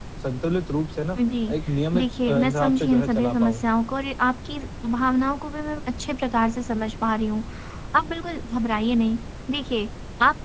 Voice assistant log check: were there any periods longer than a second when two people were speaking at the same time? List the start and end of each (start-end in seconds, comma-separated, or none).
1.9-3.6